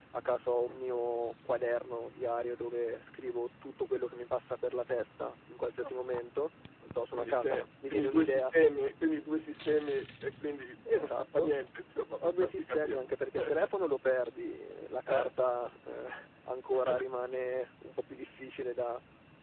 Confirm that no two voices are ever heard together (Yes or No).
No